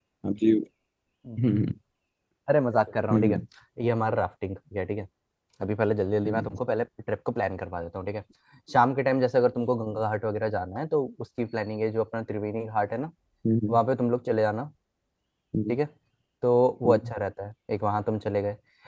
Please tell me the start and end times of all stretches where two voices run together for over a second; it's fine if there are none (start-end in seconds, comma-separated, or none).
none